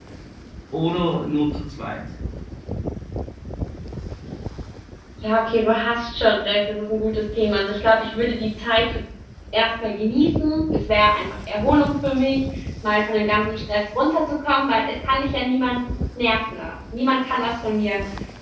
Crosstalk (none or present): none